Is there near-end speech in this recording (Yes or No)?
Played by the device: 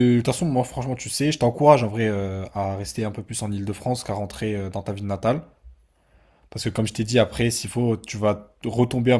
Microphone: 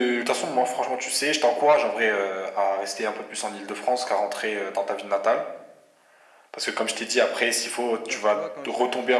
Yes